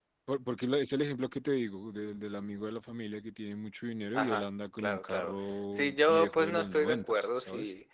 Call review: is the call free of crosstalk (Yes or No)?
No